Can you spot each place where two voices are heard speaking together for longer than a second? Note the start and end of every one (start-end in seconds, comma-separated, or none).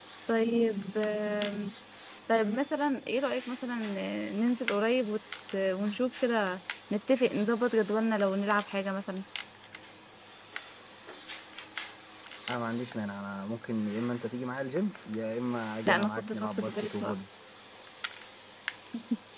15.9-17.2